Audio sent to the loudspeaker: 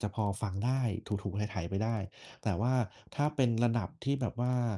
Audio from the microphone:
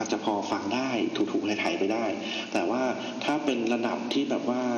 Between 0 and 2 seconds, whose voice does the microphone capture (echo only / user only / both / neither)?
echo only